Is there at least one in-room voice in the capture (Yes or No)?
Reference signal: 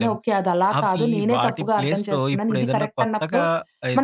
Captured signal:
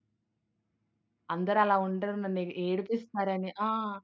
Yes